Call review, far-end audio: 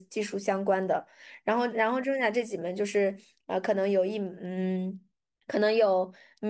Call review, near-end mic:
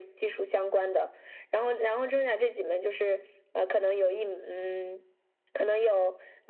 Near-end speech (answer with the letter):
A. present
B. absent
B